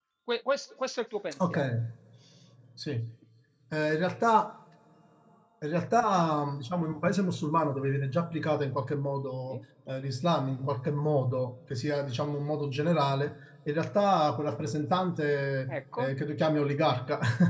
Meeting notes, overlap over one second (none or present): none